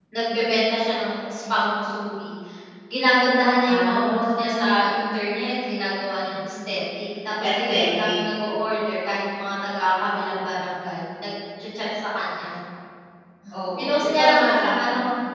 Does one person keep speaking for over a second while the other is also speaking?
Yes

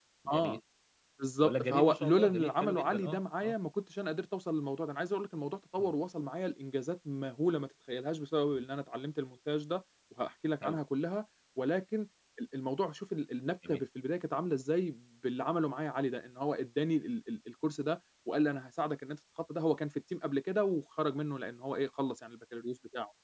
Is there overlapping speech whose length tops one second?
Yes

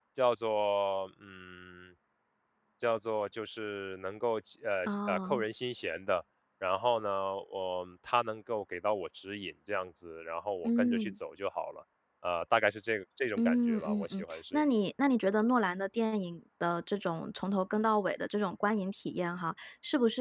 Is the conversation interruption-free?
No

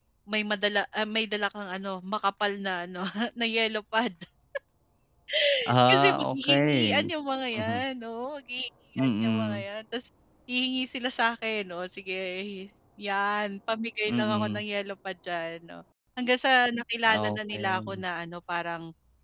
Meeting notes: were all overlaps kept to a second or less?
No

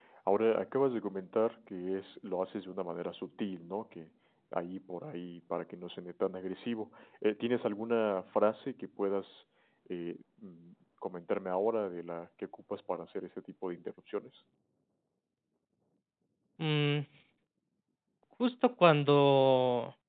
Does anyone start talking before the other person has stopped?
No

